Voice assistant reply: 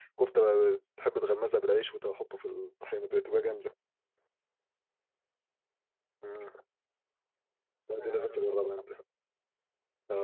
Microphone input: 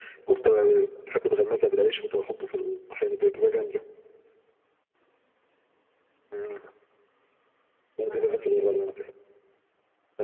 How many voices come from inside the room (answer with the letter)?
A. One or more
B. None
B